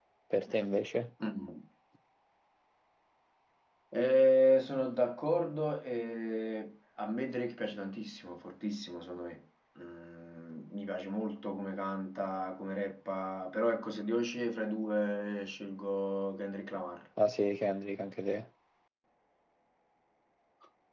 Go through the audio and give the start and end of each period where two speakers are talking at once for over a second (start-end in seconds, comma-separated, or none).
none